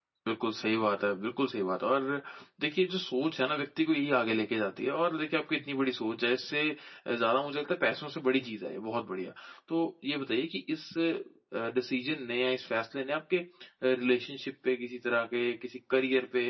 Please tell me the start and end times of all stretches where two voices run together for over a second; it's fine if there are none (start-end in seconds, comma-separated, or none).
none